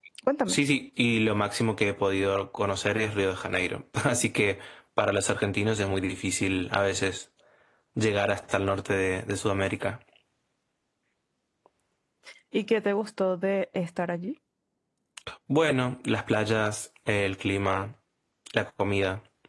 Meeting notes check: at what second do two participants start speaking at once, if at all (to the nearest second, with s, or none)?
none